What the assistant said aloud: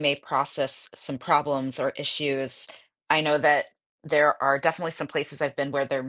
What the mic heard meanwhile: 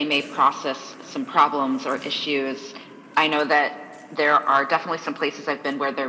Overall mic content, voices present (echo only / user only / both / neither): echo only